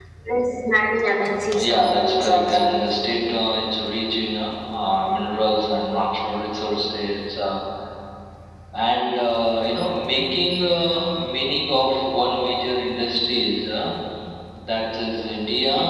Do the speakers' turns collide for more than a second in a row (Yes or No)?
Yes